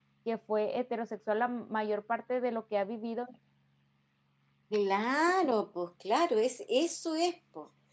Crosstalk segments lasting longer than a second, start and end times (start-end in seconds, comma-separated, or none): none